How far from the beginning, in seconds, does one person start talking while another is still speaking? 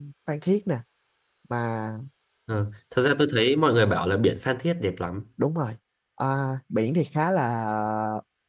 none

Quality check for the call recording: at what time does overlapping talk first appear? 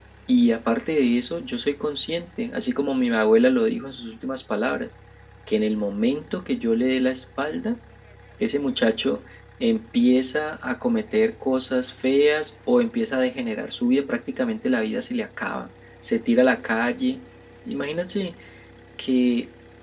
none

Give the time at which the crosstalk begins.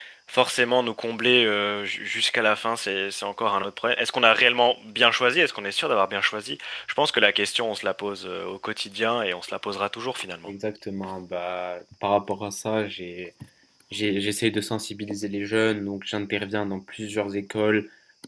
none

